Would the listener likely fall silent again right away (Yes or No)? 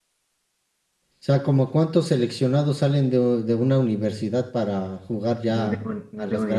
No